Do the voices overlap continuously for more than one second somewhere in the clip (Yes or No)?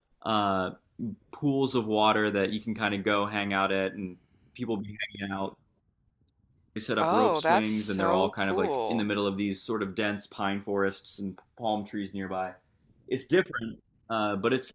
Yes